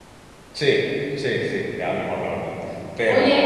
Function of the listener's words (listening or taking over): taking over